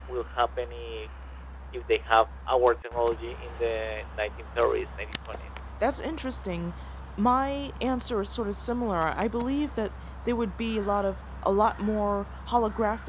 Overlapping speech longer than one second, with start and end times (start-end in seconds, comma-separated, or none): none